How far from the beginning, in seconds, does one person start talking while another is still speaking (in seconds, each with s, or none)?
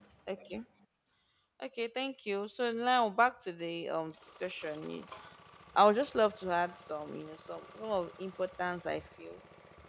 none